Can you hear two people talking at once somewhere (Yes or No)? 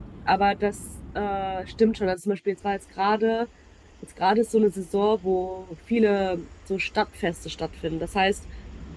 No